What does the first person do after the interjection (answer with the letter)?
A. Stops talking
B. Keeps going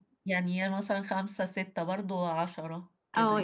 A